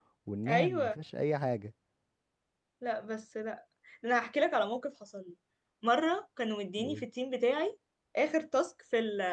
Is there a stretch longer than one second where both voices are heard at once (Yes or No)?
No